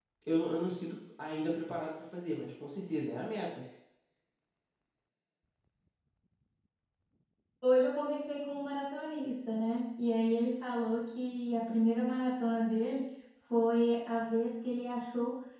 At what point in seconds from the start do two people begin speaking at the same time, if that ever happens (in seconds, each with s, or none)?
none